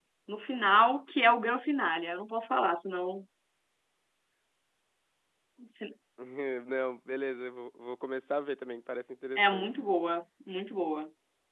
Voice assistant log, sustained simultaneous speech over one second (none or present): none